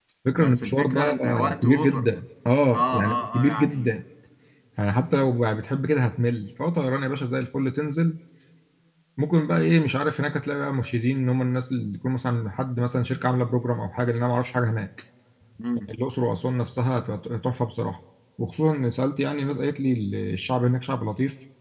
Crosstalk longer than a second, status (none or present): present